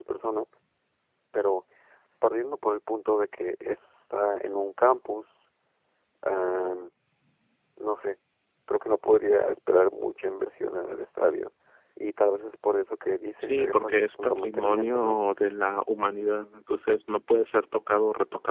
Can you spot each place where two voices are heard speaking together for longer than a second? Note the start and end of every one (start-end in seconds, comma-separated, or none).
13.4-15.2